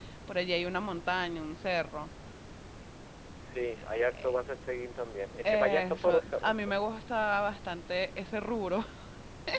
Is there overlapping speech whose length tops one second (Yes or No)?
Yes